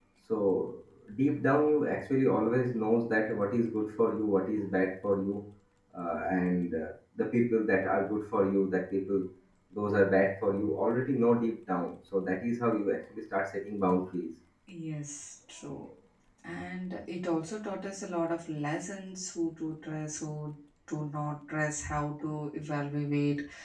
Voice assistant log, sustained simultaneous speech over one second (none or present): none